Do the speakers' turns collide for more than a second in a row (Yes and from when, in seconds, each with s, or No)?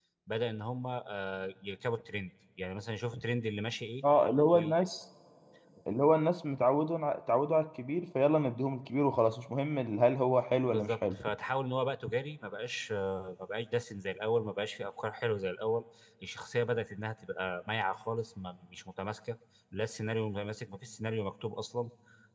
No